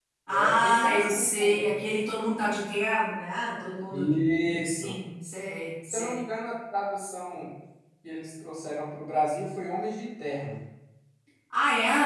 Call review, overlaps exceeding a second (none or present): present